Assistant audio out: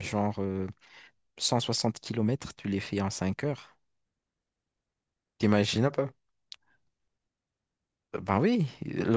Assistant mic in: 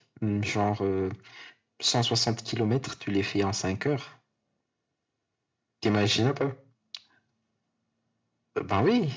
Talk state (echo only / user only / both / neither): echo only